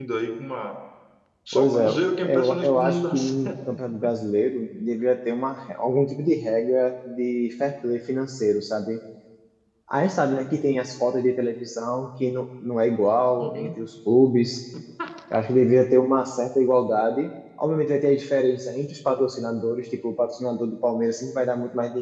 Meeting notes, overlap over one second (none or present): present